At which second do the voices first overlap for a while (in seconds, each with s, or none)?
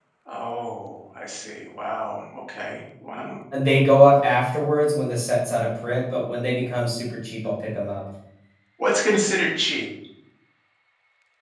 none